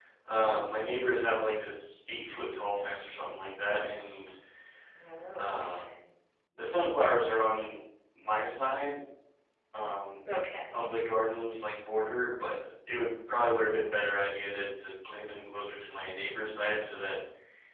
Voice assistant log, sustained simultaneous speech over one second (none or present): none